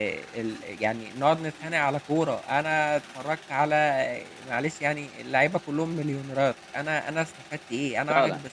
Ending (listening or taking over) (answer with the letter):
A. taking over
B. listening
B